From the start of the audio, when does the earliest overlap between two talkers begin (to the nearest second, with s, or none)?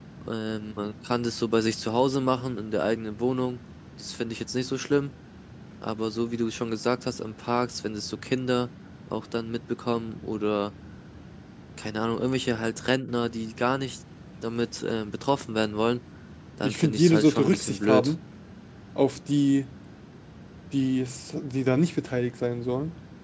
17 s